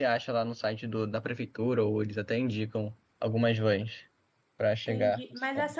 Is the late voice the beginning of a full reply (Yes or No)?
Yes